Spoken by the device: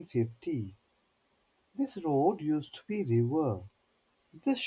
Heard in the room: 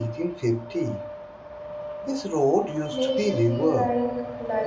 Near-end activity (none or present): present